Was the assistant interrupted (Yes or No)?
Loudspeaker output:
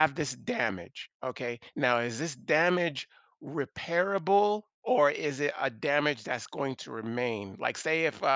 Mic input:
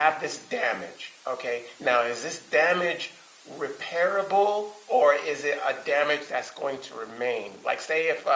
No